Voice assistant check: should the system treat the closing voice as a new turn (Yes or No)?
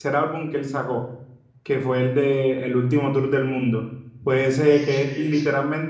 No